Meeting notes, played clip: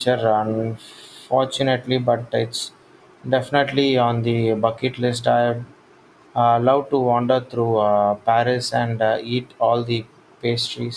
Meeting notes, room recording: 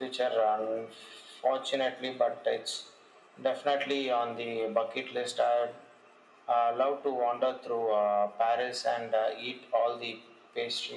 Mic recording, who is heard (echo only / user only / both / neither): echo only